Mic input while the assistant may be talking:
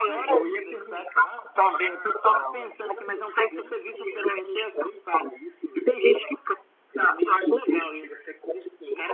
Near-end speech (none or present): none